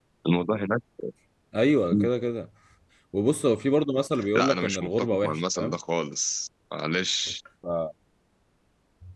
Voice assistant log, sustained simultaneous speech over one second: present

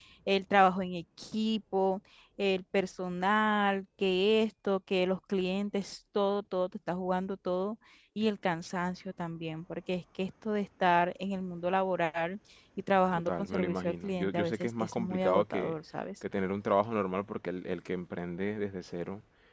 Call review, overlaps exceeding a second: present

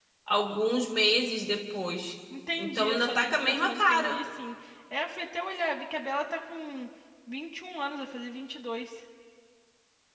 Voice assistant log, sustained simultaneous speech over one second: present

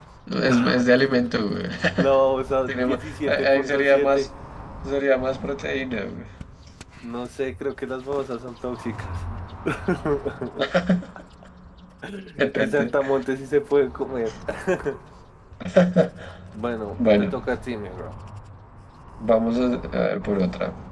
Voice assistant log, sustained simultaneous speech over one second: present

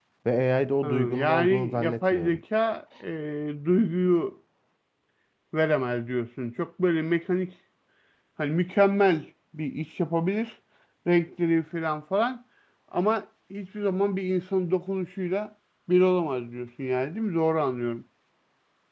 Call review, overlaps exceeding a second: present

